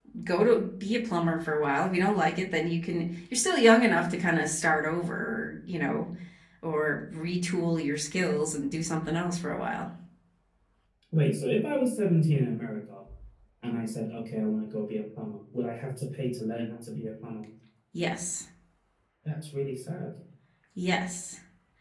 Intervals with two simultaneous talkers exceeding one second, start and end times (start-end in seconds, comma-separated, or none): none